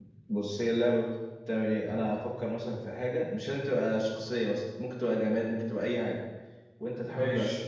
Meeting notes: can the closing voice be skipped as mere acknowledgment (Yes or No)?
Yes